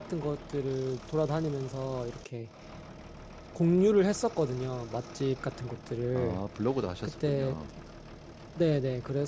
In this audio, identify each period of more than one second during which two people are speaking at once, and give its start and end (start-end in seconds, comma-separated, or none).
none